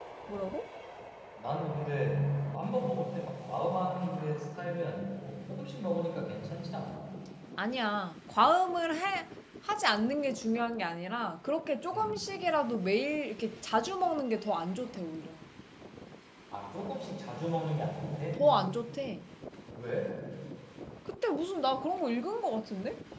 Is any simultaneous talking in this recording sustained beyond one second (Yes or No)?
No